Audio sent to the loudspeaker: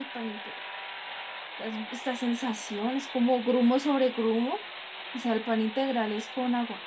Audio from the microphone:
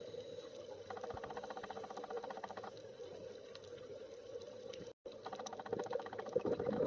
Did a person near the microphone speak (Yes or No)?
No